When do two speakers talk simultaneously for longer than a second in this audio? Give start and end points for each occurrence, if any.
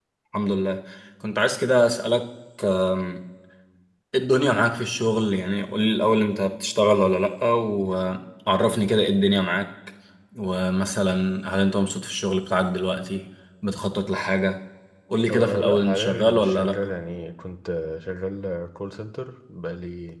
15.3-16.8

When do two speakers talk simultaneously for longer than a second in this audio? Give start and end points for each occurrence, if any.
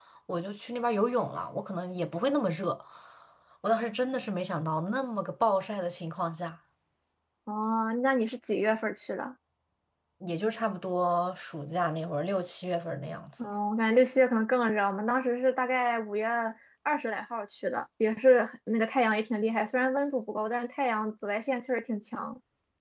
none

